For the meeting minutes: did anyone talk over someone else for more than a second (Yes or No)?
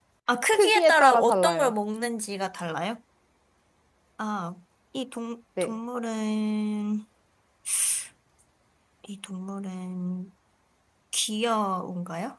Yes